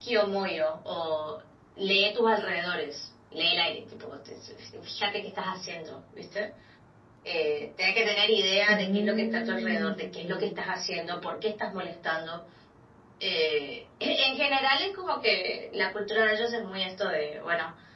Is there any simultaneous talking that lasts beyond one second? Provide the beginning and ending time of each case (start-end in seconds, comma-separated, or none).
8.7-10.6